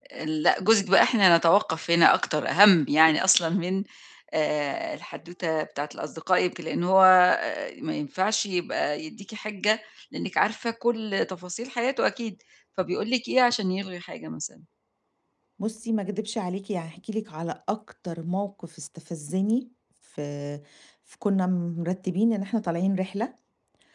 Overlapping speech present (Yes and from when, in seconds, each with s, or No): No